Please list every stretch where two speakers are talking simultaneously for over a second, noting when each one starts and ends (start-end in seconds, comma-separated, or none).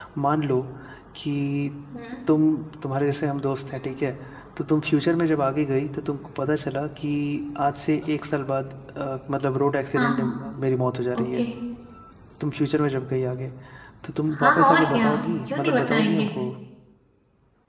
14.4-16.3